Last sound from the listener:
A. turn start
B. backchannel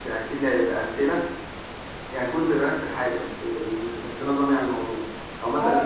A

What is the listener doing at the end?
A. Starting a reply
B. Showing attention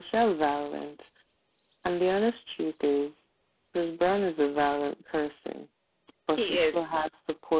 B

